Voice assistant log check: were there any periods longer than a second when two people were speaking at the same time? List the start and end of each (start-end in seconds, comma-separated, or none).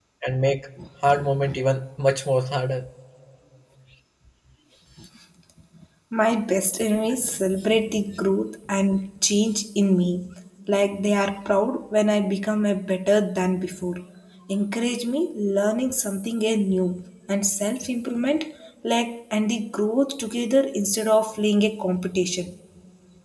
none